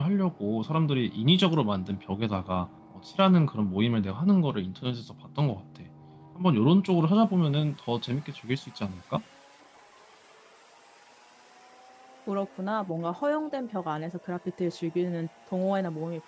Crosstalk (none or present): none